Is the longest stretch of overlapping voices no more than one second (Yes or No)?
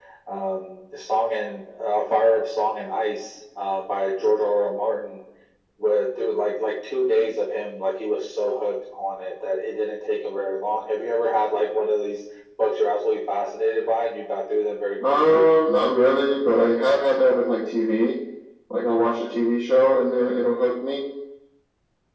Yes